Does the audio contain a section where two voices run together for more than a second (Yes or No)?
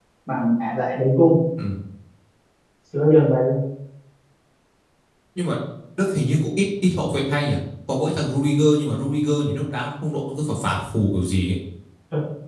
No